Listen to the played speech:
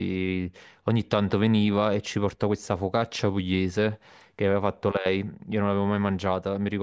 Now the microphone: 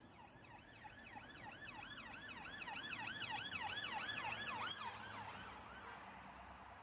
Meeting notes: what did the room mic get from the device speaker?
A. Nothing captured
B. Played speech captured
A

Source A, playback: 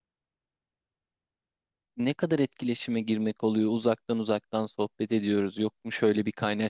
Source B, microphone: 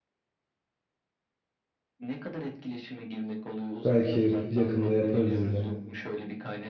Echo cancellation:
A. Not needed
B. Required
B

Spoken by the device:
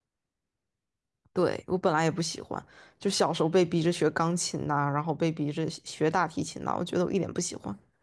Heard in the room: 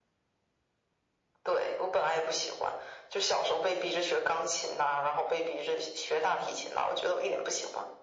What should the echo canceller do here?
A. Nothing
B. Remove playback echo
B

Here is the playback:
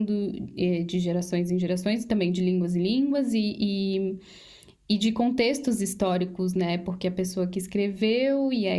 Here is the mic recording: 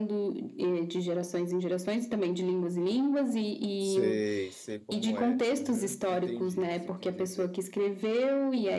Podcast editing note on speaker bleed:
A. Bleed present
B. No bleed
A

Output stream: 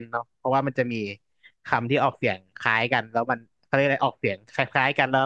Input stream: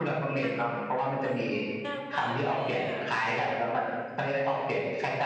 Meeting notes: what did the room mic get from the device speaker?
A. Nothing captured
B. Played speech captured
B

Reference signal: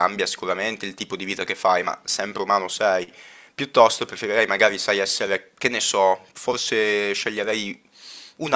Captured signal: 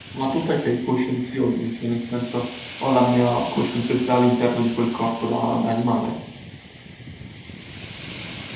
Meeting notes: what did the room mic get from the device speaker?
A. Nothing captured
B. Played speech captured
A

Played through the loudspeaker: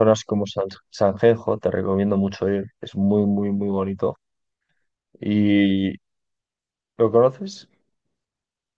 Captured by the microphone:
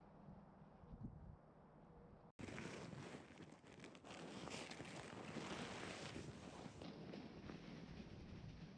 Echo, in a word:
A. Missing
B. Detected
A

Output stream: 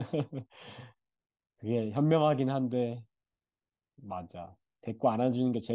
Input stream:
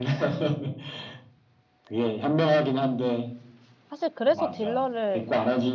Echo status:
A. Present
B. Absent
A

